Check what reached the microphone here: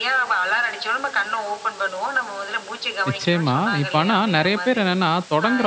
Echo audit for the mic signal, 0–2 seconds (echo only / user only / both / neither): echo only